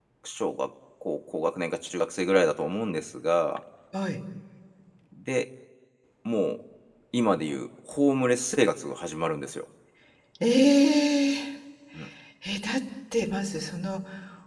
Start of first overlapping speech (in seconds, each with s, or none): none